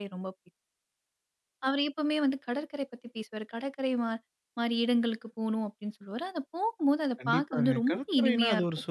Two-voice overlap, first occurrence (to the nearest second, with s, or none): 7 s